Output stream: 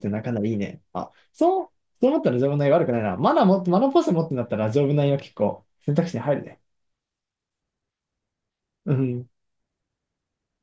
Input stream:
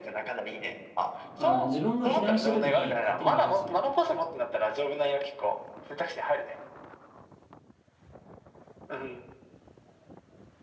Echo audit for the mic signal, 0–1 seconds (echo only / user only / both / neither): echo only